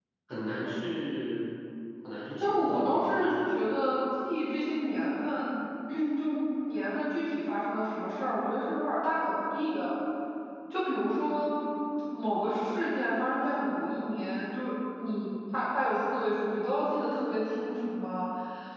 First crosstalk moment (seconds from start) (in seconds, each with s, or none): 2.4 s